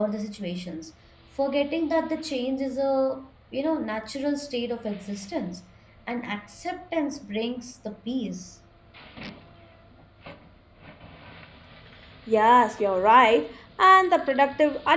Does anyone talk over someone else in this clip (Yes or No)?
No